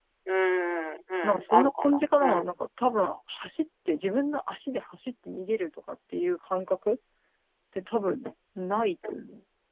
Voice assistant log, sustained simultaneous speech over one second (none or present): present